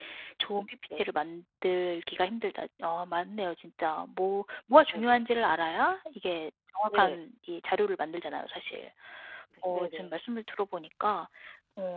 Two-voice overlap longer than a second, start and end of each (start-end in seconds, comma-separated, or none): none